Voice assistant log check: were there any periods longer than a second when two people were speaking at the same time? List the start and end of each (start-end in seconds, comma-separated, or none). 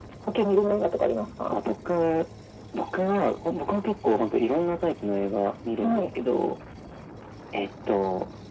none